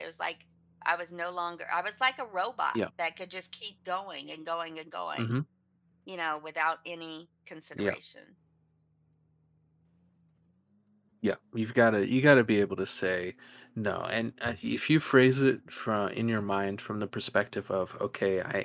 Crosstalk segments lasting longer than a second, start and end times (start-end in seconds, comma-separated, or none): none